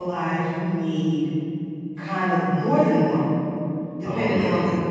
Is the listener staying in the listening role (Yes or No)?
Yes